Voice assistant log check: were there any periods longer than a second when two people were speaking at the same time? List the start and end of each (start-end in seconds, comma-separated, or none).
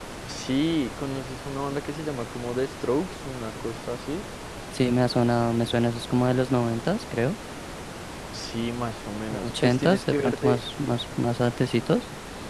9.3-10.6